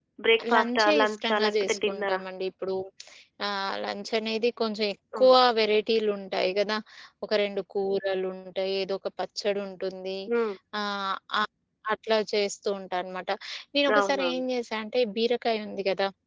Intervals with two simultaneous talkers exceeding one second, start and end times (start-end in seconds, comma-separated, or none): 0.5-2.2